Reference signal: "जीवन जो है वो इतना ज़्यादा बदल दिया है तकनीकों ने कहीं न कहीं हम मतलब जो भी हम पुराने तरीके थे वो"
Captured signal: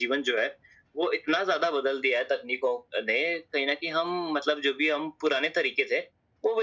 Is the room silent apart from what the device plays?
Yes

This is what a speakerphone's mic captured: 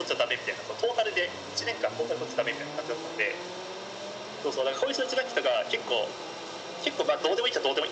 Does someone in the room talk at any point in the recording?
No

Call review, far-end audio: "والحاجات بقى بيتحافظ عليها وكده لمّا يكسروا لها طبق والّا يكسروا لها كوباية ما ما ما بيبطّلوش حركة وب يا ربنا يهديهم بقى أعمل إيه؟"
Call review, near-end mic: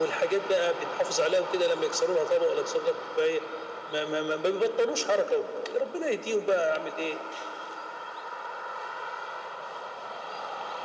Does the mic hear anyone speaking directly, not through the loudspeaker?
No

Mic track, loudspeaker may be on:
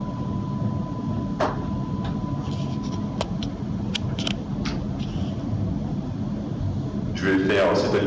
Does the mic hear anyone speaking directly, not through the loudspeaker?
Yes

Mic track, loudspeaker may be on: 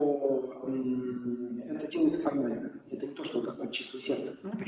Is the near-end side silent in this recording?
Yes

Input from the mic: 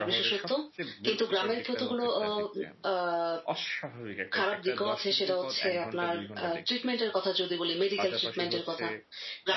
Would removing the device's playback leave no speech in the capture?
No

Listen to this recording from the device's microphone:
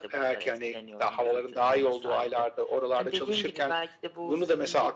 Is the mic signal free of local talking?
Yes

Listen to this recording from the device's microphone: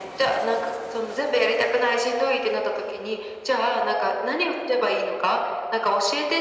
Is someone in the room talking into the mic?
No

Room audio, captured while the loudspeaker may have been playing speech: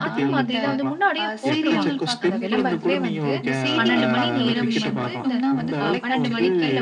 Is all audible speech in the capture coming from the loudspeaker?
No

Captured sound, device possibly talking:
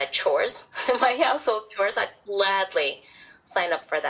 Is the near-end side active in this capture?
No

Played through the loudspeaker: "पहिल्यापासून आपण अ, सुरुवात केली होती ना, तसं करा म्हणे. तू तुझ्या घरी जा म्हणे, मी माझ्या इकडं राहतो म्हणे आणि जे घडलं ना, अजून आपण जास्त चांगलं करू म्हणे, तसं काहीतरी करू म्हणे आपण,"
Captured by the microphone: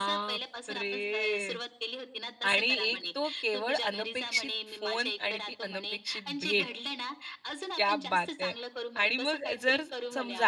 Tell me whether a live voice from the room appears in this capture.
Yes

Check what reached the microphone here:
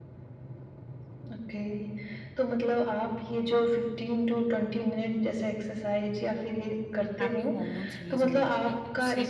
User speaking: Yes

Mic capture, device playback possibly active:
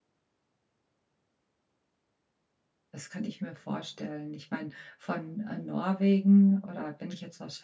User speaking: Yes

